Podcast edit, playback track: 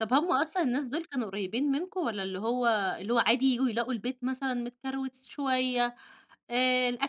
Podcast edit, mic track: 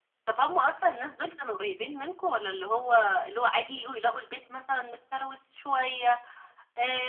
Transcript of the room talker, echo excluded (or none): none